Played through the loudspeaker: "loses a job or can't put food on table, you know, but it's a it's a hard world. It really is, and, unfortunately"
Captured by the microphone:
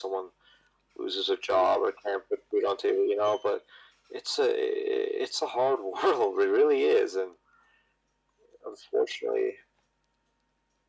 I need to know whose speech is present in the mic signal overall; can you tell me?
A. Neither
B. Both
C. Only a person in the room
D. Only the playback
D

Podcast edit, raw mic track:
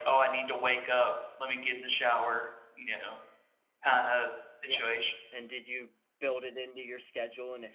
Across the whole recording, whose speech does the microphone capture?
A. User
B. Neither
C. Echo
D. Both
D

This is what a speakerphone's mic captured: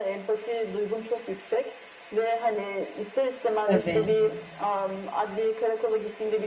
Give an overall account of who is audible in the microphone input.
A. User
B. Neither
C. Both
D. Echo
C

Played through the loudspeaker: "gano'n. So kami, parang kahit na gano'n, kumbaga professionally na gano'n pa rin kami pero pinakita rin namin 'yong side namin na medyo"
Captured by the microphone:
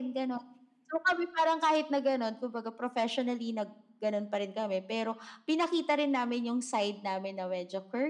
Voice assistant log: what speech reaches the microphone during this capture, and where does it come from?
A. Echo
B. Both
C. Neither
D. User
A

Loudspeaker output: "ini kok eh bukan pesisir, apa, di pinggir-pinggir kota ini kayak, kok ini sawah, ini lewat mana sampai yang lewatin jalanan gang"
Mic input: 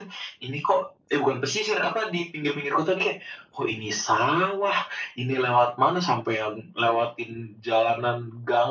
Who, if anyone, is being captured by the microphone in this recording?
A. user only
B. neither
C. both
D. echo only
D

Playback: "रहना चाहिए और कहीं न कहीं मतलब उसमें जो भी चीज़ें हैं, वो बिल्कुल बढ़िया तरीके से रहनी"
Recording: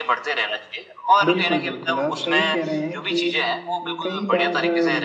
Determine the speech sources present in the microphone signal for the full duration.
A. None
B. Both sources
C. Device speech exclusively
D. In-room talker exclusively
B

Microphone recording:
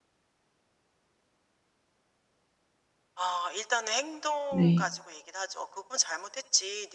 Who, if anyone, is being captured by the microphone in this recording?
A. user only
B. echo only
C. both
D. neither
C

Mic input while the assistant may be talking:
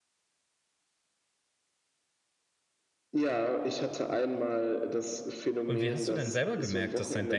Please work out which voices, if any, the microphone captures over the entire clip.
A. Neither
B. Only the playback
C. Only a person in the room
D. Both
D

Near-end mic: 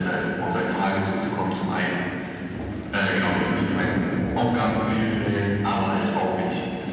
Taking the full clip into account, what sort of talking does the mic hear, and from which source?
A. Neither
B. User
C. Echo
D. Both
C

